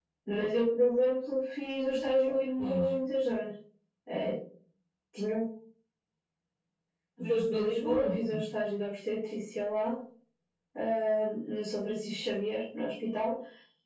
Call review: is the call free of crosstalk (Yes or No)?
No